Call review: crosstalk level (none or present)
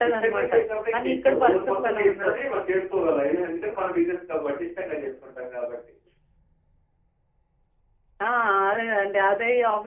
present